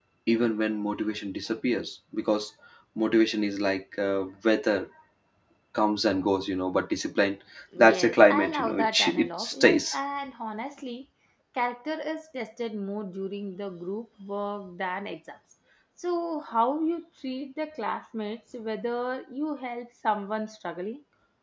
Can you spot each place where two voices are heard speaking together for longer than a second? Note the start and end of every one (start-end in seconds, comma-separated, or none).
7.8-10.0